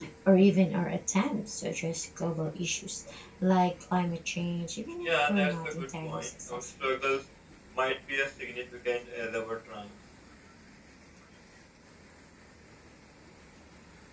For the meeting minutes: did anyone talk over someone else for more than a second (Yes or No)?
Yes